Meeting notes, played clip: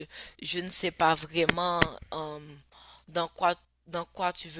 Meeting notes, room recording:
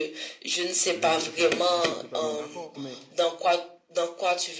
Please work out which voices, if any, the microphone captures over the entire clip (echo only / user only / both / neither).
both